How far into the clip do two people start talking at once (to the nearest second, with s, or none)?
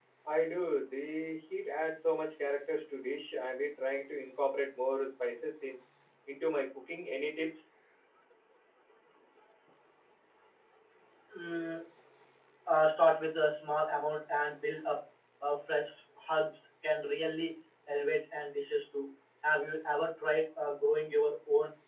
none